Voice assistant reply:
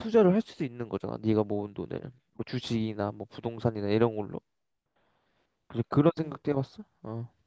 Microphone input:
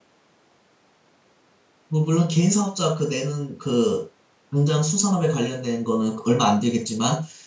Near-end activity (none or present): present